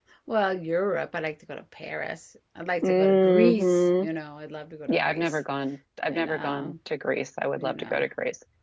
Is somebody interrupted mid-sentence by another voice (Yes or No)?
Yes